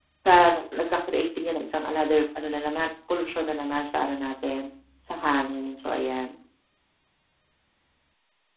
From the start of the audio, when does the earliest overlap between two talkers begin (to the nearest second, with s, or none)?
none